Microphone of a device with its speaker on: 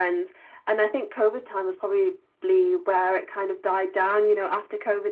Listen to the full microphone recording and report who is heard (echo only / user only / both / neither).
echo only